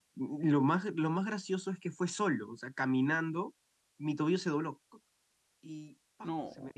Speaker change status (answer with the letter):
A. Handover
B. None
B